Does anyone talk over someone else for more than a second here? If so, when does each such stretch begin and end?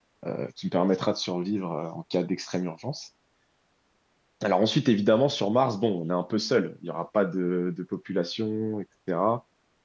none

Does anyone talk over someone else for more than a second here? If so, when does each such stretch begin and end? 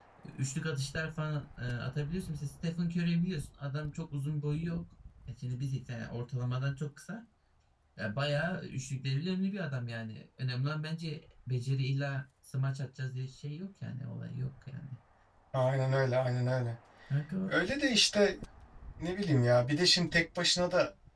none

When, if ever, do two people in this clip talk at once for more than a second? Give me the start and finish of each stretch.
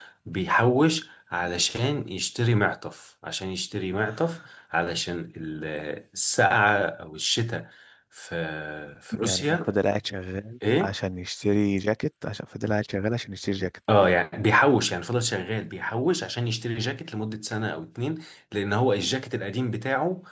none

